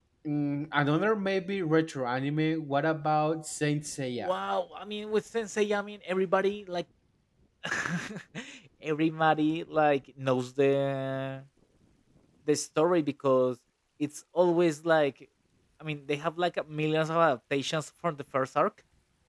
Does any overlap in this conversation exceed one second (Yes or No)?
No